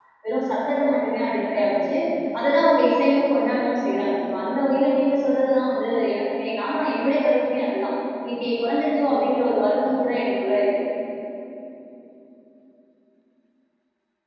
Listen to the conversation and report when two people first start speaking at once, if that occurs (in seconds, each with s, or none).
none